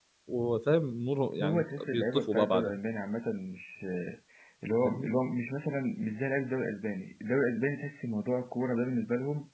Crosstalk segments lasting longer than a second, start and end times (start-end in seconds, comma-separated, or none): 1.4-2.8